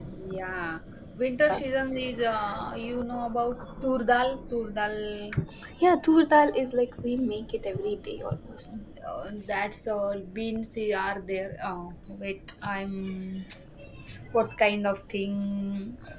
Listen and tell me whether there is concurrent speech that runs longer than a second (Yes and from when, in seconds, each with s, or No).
No